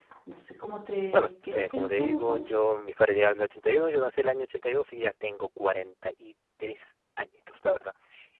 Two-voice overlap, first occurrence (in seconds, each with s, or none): 1.1 s